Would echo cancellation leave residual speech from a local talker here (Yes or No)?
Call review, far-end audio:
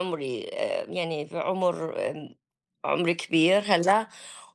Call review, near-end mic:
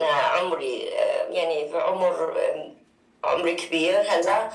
No